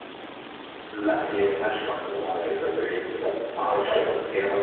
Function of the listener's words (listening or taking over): listening